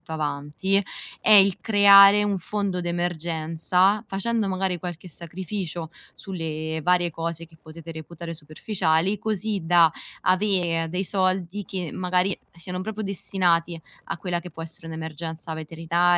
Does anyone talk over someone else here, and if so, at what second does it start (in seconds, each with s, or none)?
none